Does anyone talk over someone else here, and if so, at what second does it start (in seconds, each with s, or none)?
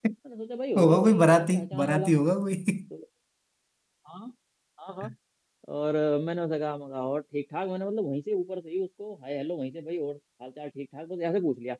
0.8 s